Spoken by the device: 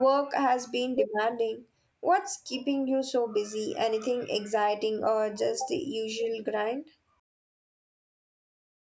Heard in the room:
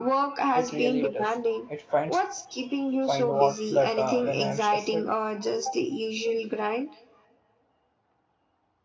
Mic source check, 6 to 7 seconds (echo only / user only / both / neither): echo only